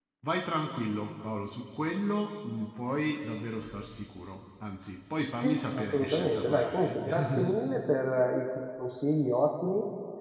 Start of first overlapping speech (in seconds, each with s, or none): 5.4 s